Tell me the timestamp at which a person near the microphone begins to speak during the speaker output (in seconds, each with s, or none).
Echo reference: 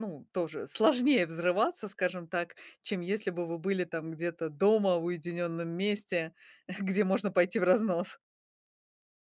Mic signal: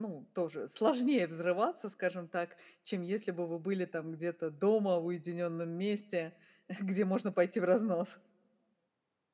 none